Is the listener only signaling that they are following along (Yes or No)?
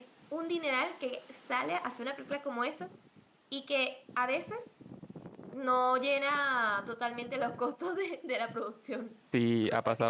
No